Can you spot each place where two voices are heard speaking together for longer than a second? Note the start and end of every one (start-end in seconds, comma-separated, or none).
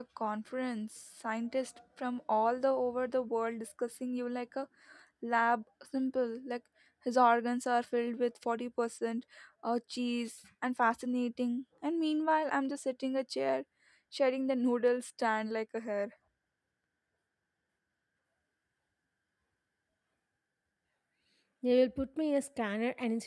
none